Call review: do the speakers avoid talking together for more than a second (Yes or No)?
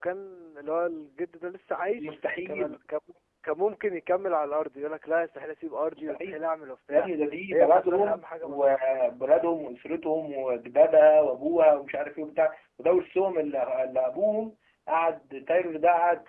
No